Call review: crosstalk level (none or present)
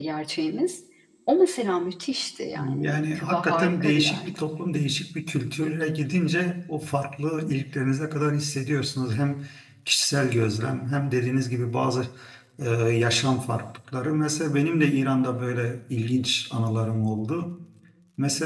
present